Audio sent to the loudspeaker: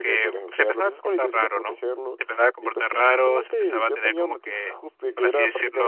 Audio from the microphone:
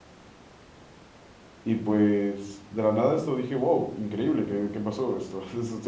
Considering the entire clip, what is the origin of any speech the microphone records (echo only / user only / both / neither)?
user only